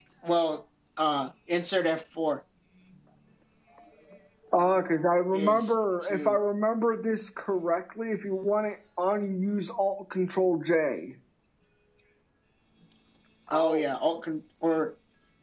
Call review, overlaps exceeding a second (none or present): present